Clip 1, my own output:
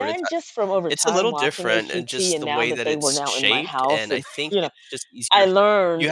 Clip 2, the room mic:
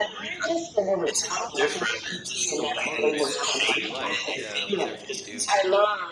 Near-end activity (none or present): present